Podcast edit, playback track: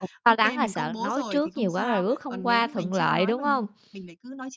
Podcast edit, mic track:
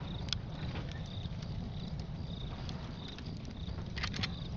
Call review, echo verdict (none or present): none